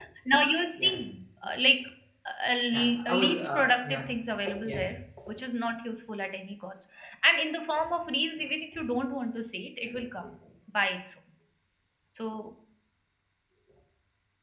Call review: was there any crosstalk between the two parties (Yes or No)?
Yes